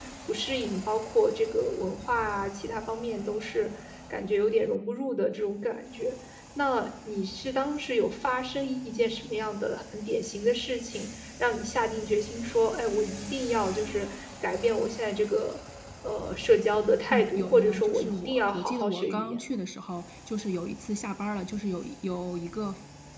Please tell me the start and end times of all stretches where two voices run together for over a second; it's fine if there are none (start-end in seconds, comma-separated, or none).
17.1-19.6